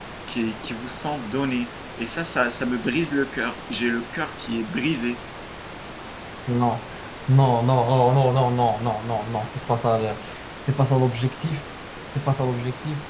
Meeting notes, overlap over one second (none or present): none